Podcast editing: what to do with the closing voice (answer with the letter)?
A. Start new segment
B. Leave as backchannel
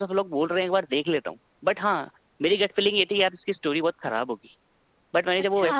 B